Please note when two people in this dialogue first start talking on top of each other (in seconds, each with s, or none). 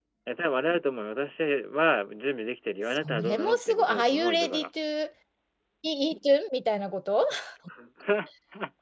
3.0 s